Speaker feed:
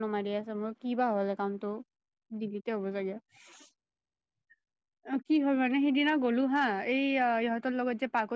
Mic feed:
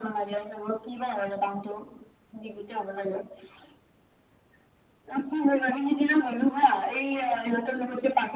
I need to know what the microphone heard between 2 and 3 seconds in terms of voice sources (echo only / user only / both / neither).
echo only